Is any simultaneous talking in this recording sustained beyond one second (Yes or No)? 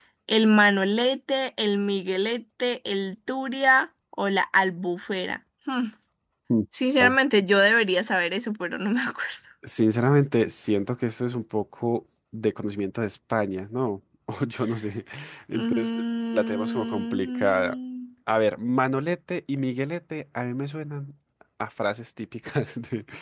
Yes